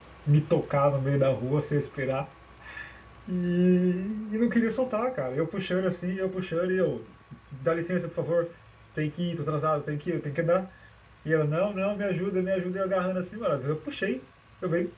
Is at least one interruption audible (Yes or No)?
No